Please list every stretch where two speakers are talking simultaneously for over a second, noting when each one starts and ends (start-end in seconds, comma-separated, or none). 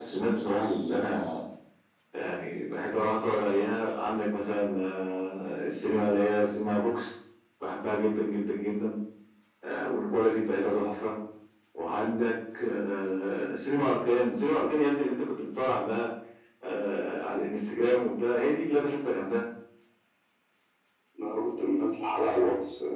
none